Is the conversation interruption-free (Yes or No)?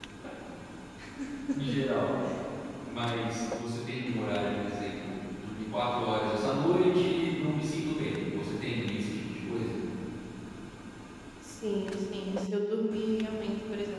Yes